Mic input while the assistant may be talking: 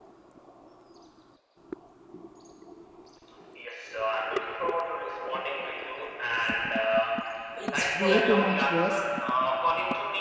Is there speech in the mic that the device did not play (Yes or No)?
Yes